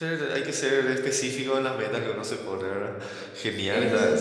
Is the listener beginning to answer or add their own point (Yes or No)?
Yes